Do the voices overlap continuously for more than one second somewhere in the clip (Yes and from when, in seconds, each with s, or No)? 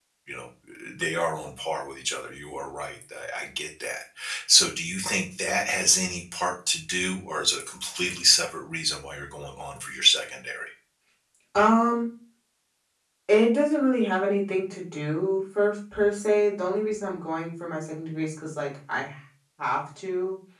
No